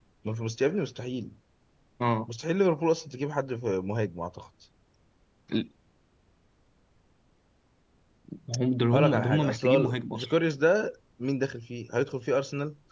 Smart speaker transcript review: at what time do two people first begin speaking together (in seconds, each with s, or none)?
8.9 s